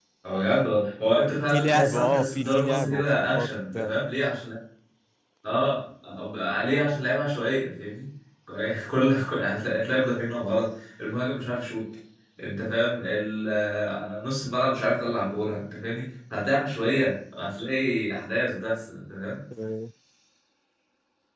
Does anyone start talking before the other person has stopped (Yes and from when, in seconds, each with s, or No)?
Yes, from 1.5 s